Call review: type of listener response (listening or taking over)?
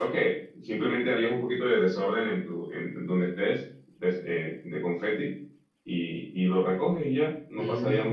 taking over